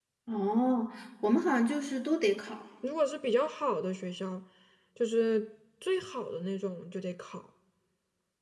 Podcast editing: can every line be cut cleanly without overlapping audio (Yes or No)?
Yes